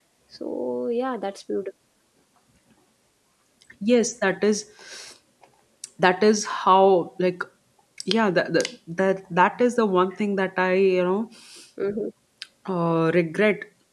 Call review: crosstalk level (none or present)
none